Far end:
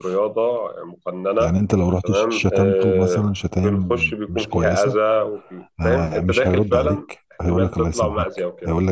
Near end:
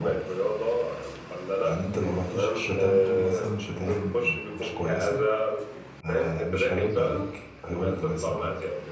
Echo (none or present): present